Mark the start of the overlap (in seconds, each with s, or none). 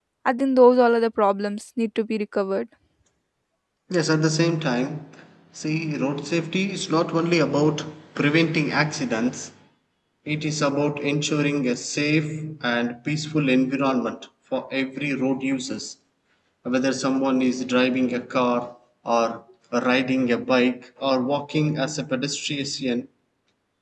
none